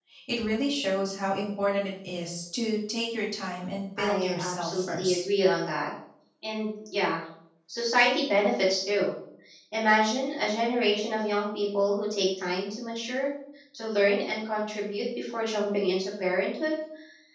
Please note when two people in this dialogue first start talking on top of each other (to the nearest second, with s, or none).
4 s